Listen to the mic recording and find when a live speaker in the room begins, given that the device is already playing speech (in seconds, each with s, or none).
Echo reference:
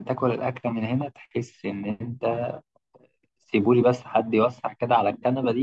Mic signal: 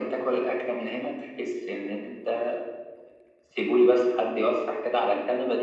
none